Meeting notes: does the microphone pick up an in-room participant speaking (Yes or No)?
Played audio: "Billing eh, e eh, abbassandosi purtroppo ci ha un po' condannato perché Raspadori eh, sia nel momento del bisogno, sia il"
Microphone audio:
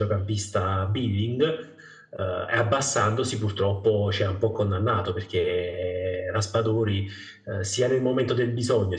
No